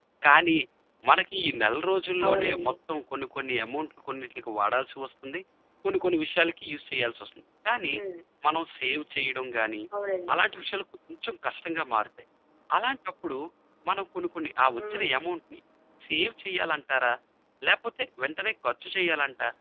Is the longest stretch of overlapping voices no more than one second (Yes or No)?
Yes